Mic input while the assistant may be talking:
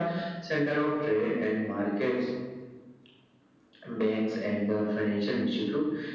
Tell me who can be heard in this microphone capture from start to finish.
echo only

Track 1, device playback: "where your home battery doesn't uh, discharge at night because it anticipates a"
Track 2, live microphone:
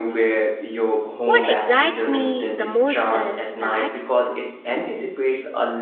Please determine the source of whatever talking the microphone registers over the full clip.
both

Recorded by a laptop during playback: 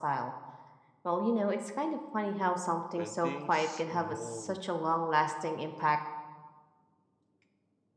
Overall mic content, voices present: both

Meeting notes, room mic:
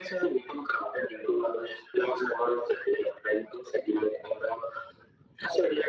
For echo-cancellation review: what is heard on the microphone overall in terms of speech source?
echo only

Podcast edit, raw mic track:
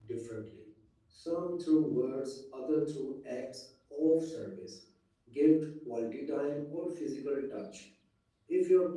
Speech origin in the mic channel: user only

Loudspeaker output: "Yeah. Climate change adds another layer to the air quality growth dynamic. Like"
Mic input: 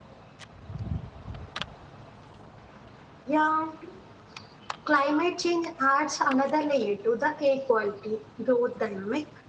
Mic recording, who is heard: echo only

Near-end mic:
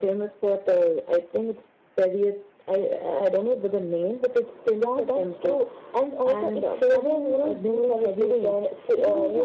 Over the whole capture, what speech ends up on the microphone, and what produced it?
echo only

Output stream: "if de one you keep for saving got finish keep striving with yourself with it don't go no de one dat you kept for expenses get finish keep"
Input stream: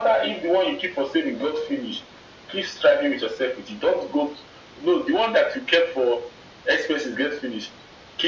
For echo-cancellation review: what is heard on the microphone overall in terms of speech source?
echo only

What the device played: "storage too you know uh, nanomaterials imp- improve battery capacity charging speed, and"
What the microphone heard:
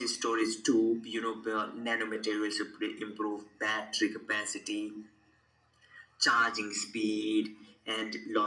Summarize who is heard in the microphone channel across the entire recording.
echo only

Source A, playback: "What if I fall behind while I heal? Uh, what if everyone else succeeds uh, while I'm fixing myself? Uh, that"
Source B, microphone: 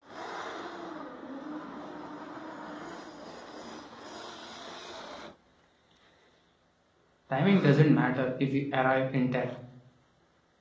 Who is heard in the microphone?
user only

